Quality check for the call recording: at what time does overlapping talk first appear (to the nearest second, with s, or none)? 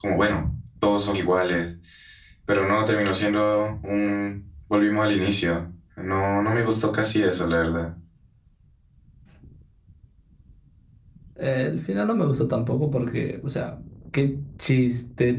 none